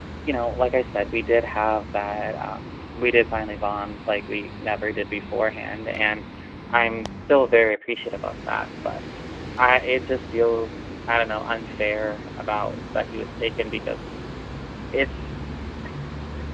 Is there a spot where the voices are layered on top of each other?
No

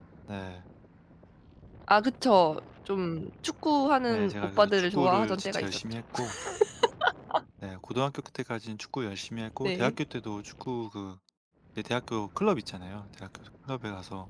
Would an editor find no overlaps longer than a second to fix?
No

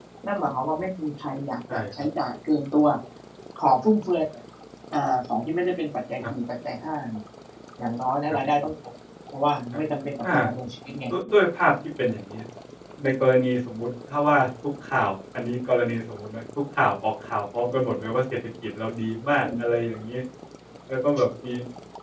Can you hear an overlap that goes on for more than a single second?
No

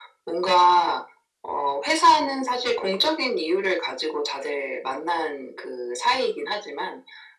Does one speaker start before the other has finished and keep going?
No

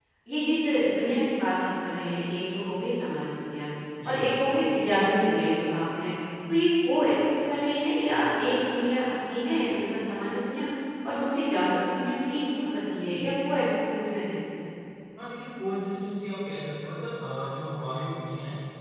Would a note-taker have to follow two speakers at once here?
No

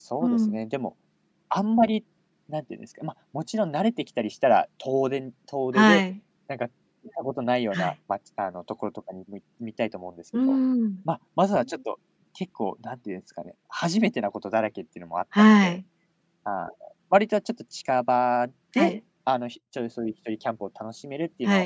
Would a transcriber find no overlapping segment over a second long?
Yes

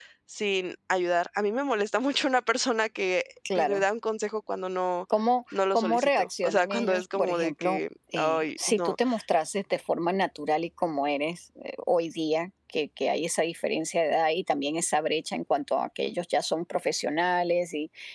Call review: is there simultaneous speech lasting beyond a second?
Yes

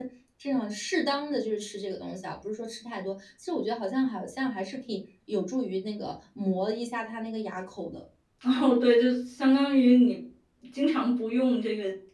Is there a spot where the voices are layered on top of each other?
No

